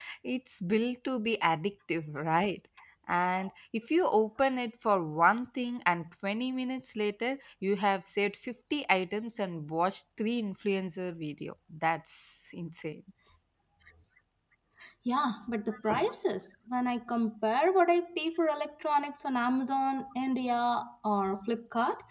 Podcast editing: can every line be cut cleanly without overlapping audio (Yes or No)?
Yes